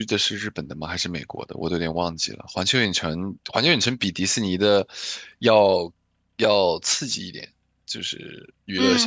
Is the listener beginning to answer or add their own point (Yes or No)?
Yes